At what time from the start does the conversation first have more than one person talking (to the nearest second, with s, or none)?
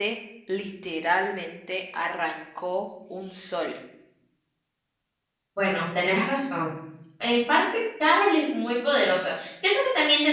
none